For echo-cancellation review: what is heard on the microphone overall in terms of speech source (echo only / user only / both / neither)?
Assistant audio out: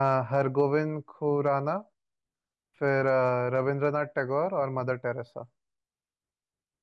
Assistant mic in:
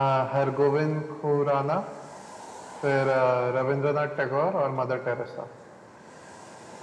echo only